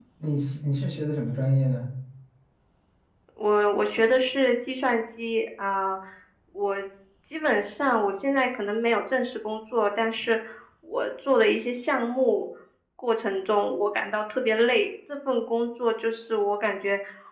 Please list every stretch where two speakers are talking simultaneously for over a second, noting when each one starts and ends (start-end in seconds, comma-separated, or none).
none